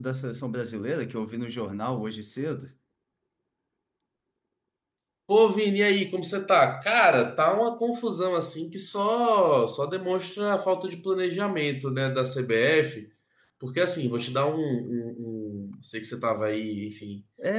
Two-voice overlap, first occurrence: none

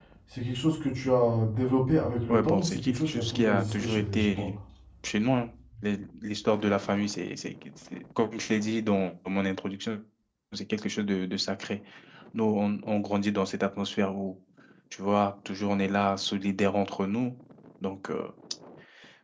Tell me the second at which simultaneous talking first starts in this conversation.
2.3 s

